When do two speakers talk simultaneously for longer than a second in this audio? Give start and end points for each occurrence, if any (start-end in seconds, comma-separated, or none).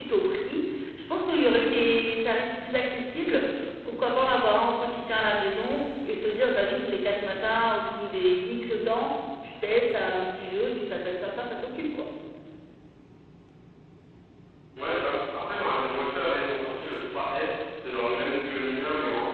none